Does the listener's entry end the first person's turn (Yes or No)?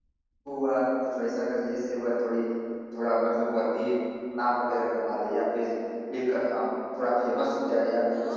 Yes